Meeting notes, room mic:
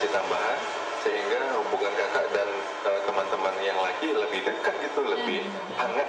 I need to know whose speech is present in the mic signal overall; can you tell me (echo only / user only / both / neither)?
both